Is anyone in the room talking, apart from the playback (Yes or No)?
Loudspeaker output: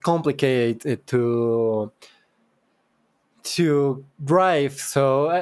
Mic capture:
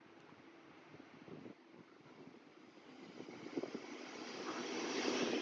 No